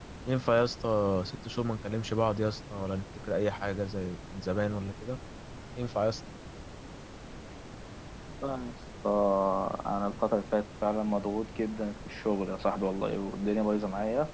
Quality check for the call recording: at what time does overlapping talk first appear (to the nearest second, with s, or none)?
none